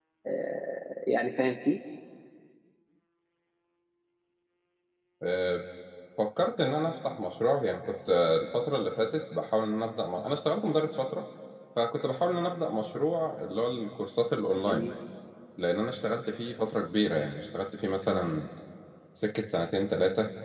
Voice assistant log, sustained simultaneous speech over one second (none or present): none